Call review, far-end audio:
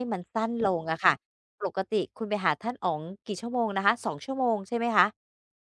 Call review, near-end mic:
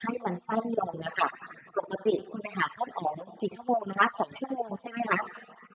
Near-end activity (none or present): none